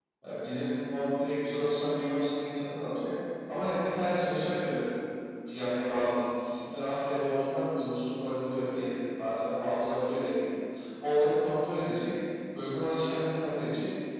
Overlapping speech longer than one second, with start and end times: none

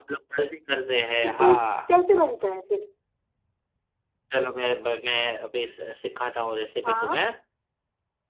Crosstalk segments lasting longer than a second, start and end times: none

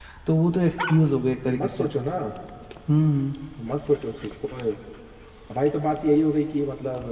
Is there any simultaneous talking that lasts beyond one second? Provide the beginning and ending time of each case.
none

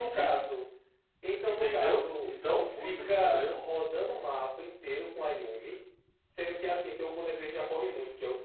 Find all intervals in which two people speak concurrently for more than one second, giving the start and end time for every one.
1.4-3.5

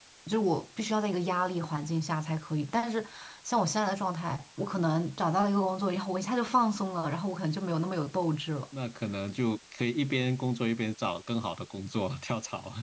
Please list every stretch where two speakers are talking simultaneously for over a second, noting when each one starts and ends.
none

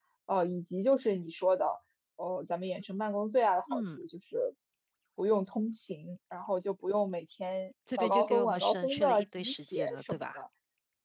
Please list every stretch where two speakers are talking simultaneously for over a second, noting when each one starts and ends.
8.0-10.4

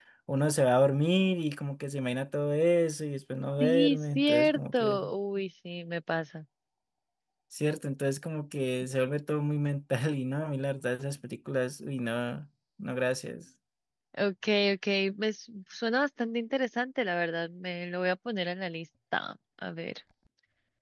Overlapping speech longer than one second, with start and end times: 3.6-5.0

